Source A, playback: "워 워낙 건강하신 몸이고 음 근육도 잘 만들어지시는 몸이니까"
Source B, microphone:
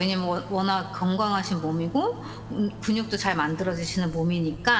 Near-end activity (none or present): none